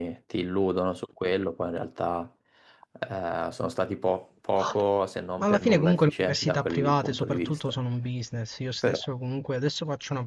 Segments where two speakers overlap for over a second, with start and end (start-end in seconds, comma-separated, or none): 5.4-7.6